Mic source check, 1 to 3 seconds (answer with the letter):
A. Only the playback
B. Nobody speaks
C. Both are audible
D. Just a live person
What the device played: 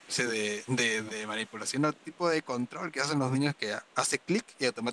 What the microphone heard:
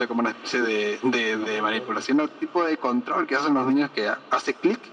C